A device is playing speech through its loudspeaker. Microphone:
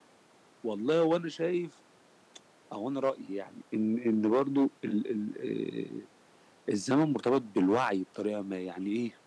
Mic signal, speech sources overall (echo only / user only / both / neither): user only